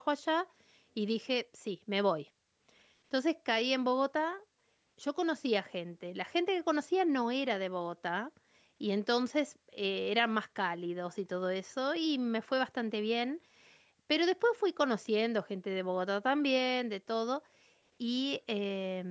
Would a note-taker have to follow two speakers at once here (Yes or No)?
No